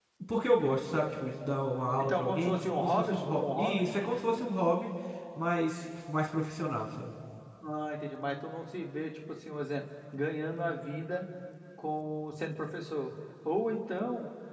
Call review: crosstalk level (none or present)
present